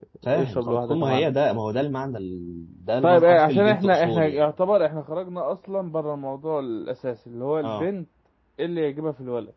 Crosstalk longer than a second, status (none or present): present